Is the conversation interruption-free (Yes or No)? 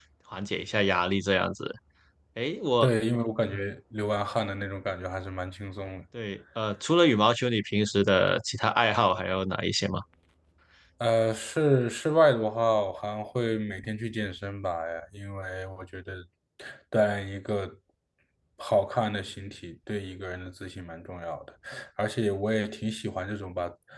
Yes